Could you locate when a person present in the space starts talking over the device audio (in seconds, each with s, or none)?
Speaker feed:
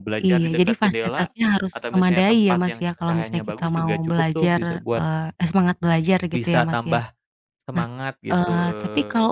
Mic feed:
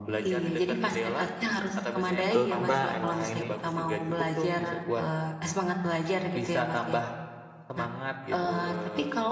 2.3 s